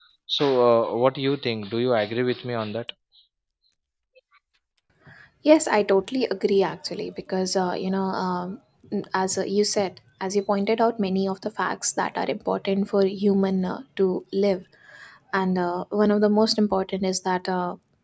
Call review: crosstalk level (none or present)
none